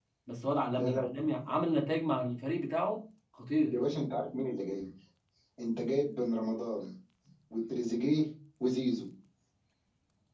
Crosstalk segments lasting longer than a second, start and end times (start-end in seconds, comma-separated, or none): none